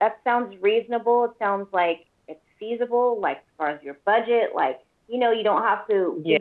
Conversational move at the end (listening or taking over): listening